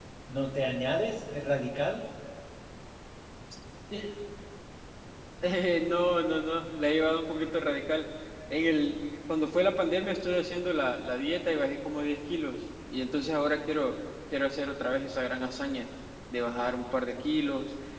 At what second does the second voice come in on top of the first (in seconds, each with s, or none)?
none